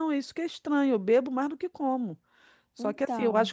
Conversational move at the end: listening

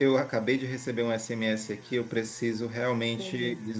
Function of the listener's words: listening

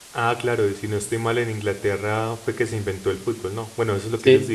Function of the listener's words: taking over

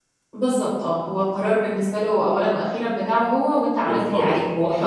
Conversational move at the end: taking over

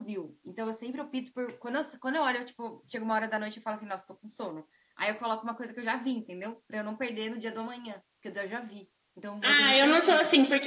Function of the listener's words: taking over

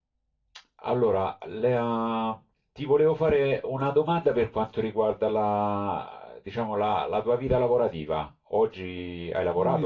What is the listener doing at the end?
taking over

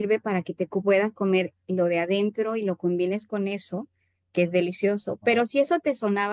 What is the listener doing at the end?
listening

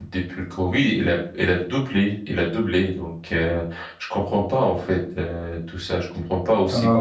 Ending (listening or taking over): listening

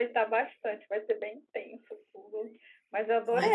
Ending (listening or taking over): listening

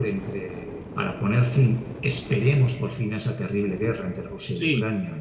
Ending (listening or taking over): taking over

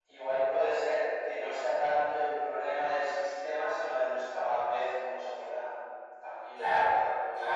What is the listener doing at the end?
taking over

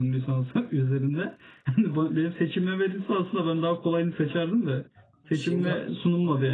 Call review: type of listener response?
listening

